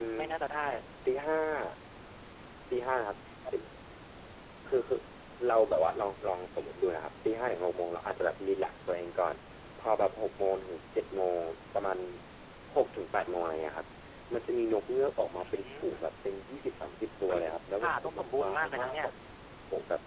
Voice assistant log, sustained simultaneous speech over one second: present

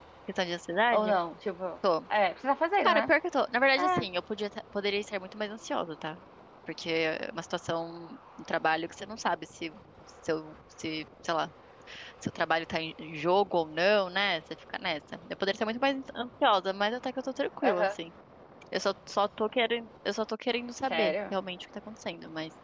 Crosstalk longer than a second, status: none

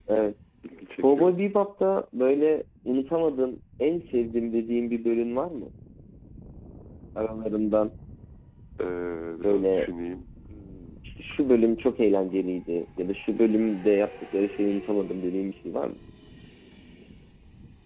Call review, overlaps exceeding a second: none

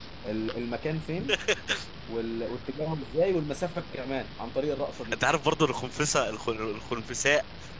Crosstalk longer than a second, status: none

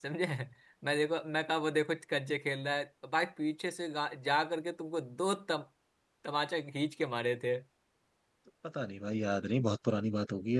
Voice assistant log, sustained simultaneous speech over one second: none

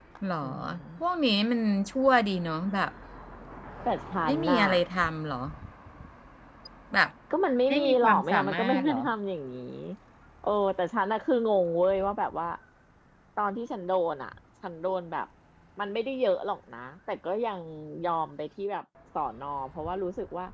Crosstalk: present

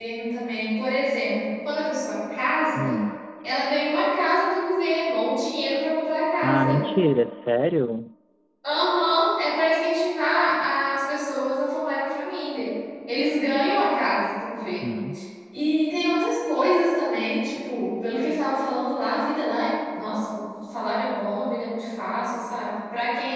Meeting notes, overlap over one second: none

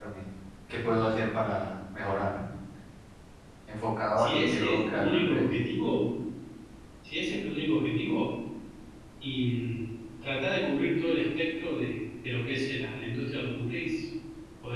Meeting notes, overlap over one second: present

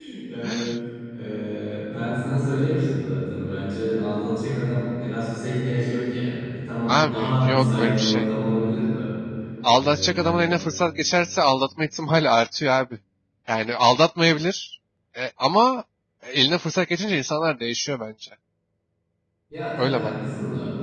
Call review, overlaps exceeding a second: present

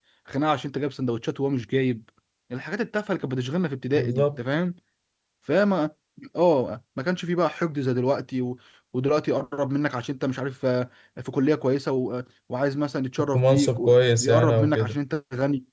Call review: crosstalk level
present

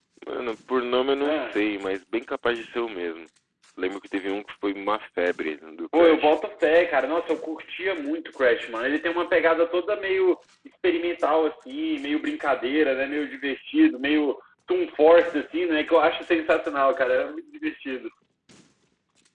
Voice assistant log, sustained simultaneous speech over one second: none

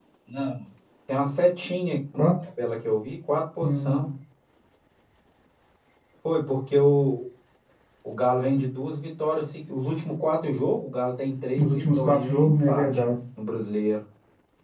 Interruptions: present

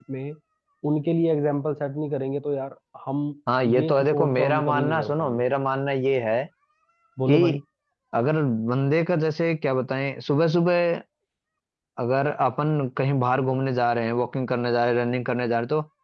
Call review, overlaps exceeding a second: present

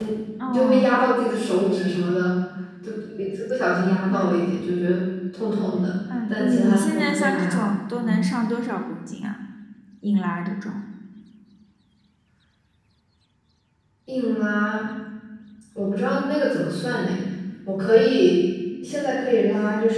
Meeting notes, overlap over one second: present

